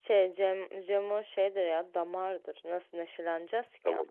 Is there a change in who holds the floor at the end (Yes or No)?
Yes